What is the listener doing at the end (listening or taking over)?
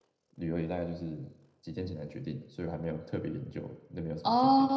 taking over